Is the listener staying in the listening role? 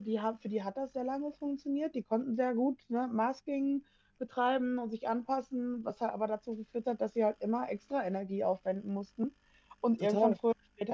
Yes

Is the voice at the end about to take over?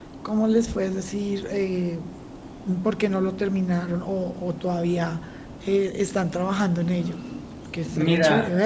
Yes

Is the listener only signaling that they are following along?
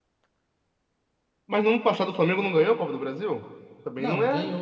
No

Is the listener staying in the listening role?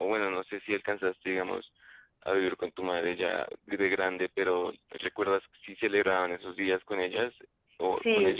No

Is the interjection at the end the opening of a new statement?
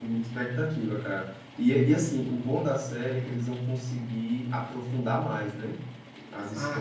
Yes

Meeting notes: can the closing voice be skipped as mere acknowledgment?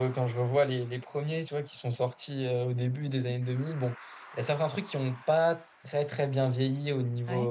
Yes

